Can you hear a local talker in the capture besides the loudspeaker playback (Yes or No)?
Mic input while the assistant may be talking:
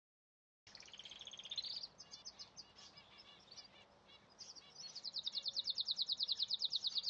No